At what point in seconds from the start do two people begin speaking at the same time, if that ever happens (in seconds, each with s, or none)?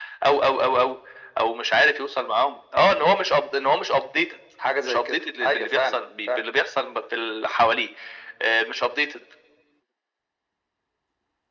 4.8 s